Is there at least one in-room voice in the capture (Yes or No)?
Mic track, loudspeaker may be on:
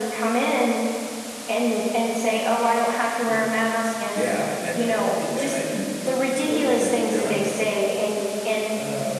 No